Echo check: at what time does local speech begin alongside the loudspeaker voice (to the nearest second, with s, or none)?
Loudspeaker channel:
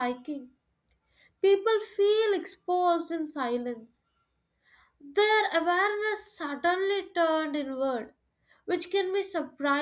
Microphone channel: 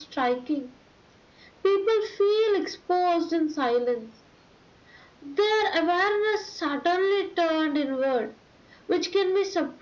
none